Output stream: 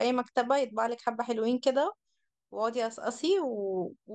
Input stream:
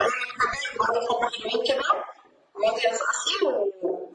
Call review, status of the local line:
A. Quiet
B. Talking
A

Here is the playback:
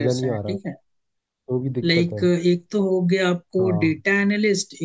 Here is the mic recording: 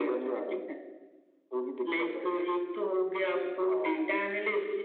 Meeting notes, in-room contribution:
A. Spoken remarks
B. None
B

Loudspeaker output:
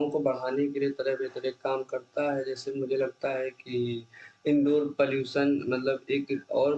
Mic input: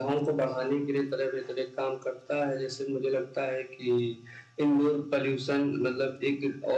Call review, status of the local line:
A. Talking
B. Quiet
B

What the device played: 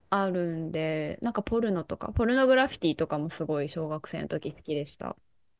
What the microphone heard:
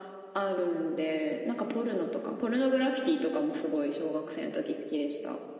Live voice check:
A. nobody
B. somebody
A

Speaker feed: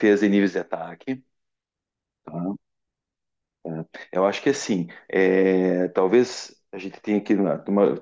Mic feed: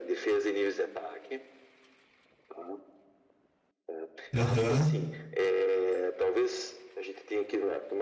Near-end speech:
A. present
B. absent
A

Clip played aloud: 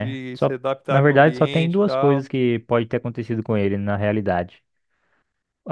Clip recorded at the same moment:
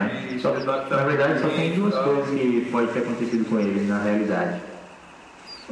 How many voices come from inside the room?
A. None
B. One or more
A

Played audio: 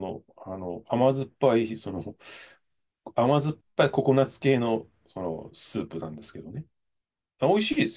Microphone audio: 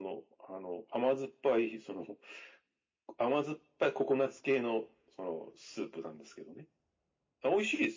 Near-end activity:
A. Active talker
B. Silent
B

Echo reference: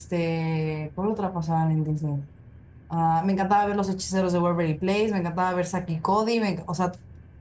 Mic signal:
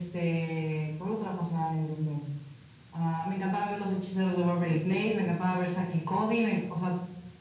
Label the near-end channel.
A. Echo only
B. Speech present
B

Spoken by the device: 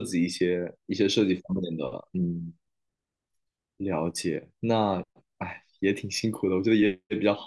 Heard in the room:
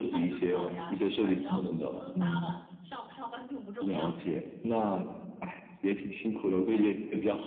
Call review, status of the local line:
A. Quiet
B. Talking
B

